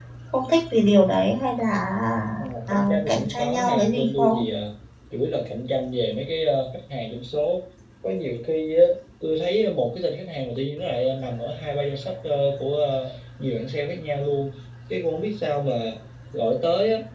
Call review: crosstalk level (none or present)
present